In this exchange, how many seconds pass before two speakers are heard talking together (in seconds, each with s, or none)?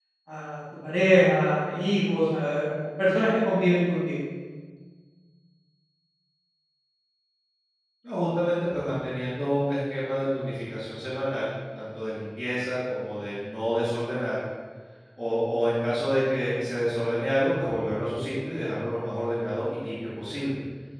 none